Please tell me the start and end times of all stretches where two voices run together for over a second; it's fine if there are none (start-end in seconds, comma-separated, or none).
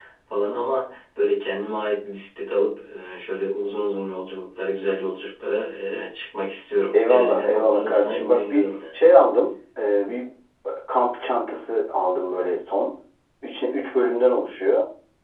6.9-8.7